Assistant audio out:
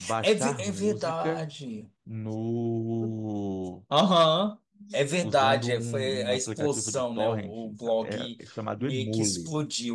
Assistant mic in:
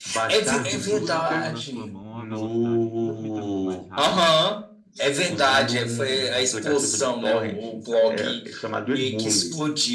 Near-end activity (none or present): present